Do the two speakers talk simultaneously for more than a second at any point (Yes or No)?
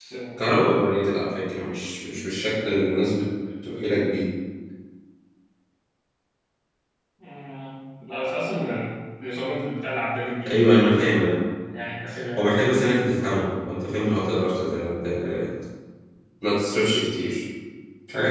No